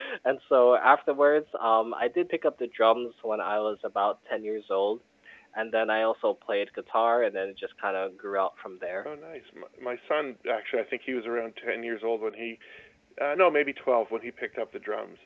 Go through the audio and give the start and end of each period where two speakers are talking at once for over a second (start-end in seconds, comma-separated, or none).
none